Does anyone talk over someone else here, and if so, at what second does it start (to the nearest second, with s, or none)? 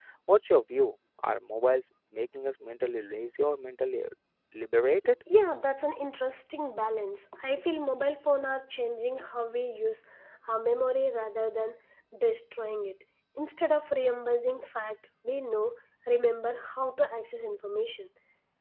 none